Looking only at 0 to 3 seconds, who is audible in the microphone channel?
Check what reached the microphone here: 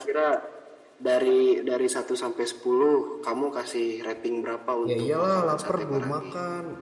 echo only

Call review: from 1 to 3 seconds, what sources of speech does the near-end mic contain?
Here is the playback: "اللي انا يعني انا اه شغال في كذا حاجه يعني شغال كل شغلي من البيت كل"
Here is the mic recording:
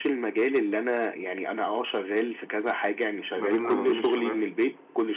echo only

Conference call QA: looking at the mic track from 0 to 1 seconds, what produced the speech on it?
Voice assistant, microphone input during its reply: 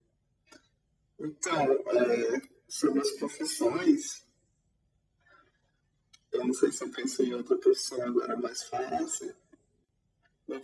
neither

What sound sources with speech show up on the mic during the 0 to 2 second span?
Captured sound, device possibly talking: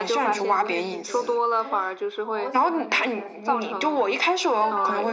both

